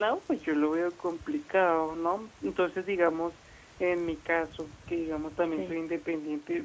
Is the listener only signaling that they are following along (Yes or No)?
Yes